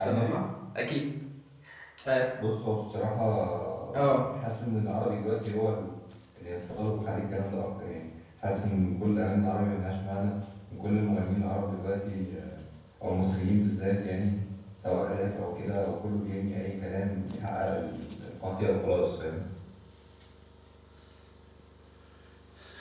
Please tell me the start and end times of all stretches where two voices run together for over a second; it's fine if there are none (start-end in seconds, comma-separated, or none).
none